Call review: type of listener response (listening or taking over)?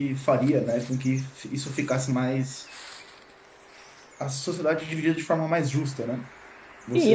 taking over